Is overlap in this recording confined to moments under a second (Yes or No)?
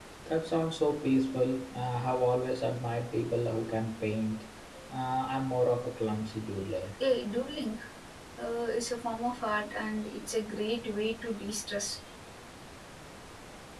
Yes